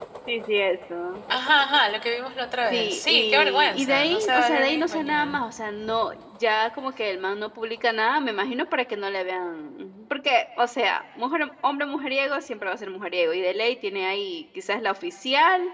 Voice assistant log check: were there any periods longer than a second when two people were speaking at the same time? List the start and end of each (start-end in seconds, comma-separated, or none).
2.7-5.4